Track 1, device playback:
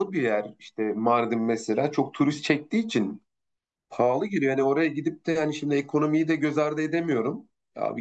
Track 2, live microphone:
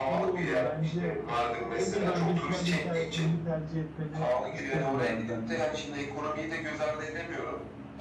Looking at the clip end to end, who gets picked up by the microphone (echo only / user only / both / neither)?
both